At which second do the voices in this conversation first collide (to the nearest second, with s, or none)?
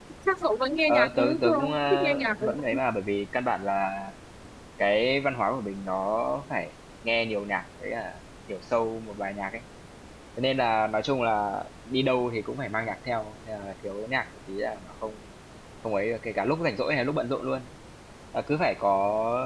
1 s